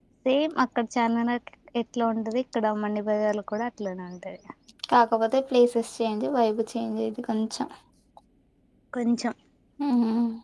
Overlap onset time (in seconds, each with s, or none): none